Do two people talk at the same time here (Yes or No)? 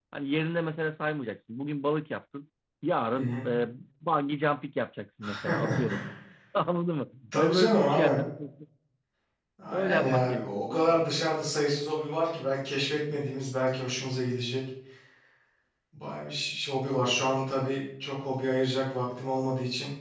Yes